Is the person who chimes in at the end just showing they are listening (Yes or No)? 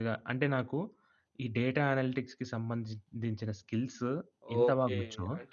No